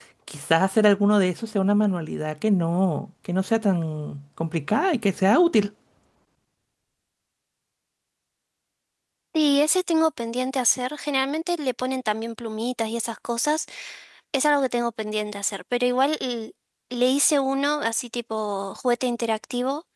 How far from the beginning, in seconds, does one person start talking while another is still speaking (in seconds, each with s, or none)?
none